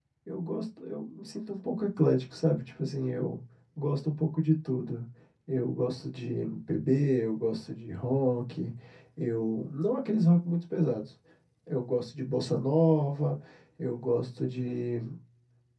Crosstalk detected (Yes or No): No